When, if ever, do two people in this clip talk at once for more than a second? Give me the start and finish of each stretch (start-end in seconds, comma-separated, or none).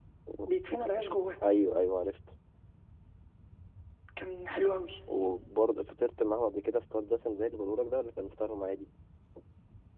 none